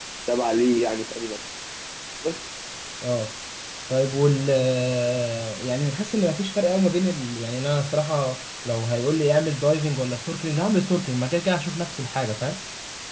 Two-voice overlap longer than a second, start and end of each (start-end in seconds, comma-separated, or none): none